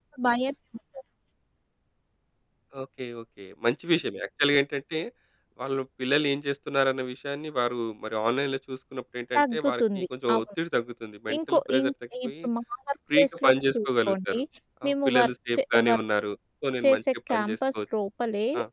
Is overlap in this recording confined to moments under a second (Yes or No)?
No